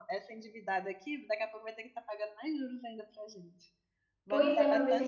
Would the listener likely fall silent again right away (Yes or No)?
No